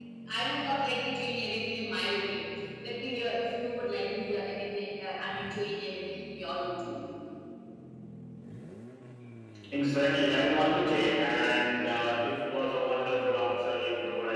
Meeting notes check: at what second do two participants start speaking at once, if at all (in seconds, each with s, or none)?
none